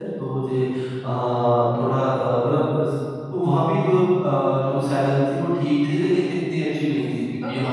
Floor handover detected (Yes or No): No